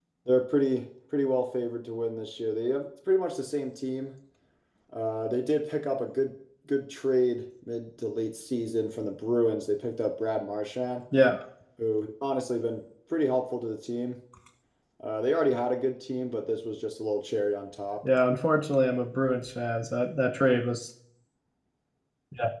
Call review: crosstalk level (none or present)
none